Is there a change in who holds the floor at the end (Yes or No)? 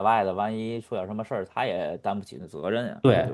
Yes